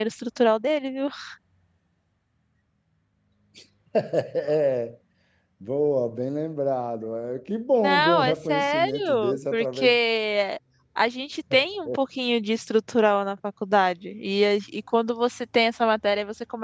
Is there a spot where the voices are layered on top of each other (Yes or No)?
Yes